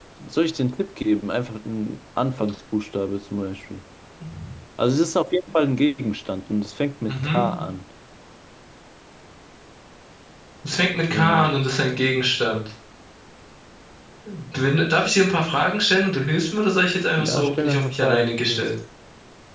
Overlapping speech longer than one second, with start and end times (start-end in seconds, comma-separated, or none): 17.2-18.7